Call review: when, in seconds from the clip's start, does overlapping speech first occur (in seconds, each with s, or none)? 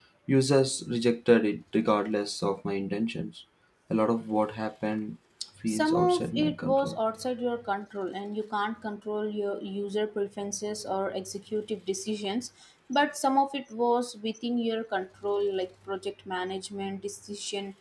5.7 s